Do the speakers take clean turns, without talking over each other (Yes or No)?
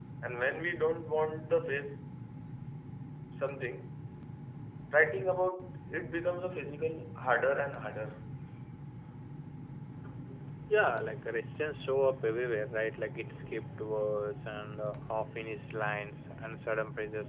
Yes